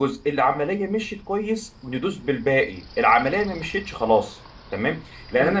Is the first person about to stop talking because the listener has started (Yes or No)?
No